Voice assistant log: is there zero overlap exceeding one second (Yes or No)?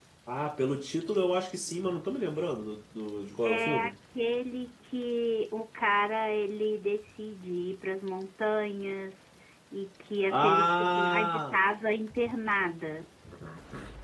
No